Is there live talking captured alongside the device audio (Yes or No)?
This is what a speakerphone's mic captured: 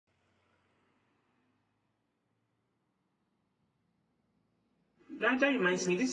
Yes